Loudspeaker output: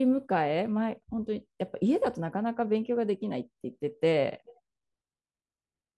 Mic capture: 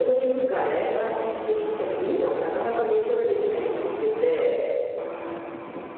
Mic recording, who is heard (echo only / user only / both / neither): echo only